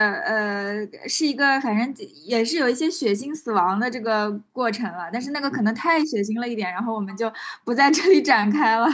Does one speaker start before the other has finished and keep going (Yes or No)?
No